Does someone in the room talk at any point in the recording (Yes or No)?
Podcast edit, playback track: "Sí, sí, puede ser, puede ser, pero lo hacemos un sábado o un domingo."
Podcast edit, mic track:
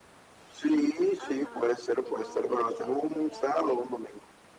Yes